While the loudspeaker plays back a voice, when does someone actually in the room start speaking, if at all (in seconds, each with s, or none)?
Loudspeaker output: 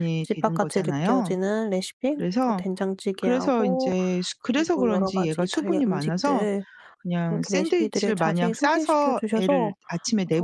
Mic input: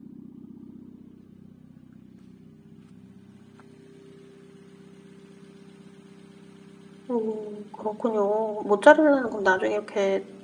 7.1 s